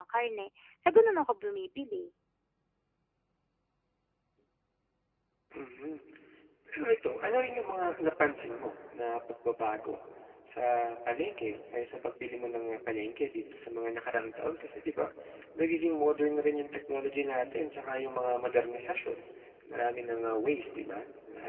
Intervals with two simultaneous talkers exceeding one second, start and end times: none

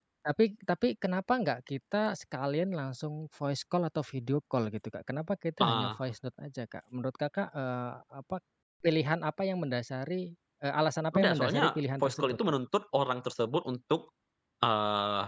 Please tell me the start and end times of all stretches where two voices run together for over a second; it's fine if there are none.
11.1-12.4

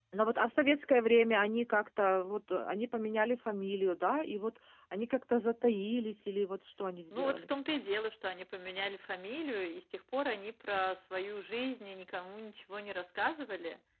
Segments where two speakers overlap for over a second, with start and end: none

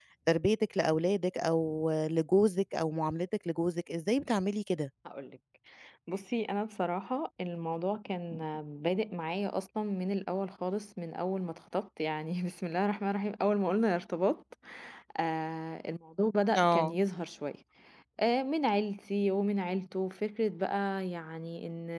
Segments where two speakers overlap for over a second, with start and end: none

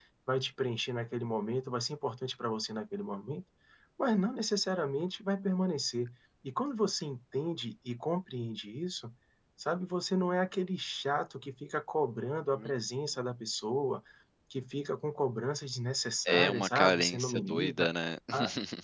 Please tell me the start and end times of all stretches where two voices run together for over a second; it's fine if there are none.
16.3-17.9

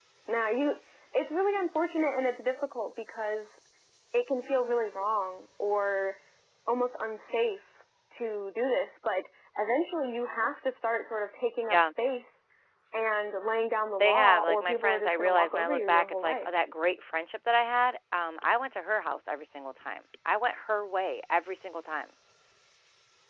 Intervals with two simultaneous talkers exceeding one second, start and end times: 14.0-16.5

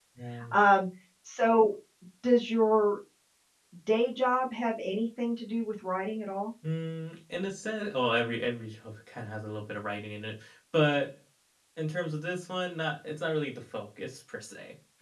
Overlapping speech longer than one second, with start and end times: none

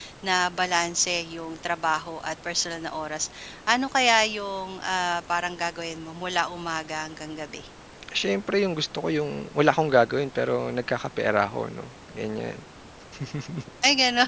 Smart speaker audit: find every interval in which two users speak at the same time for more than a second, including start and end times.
none

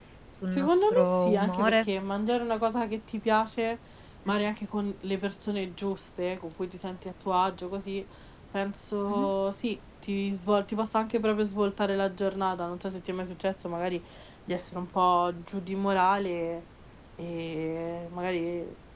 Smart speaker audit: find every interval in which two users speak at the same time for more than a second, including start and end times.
0.5-1.9

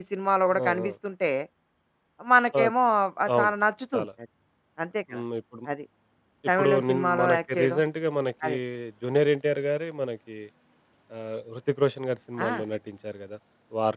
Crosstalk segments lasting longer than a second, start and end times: 6.6-7.8

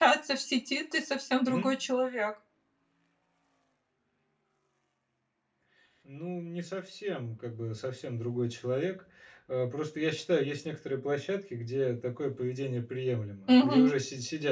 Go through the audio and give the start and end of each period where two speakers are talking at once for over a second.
none

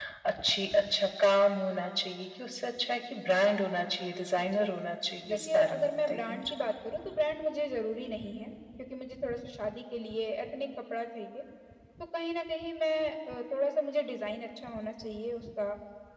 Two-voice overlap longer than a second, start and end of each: 5.3-6.5

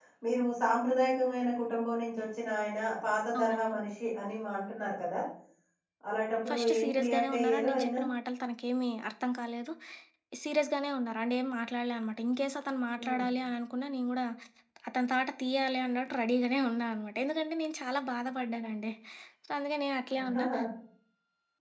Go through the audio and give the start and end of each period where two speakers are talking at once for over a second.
6.5-7.9

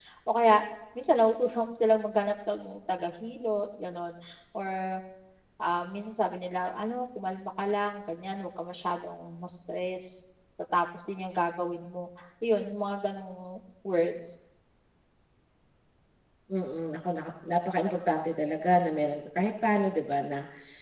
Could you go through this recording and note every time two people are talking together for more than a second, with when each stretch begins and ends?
none

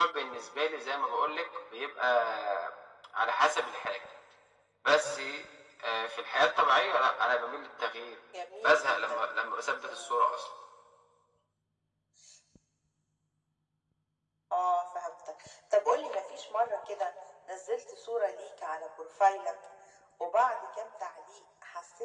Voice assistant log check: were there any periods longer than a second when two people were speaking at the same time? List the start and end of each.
none

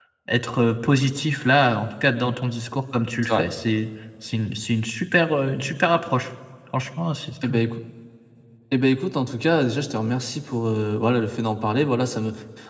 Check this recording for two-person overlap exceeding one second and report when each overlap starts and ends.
none

